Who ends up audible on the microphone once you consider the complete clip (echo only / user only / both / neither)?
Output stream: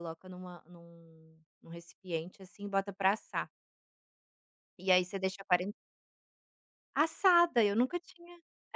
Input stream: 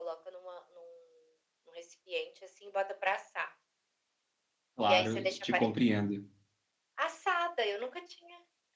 both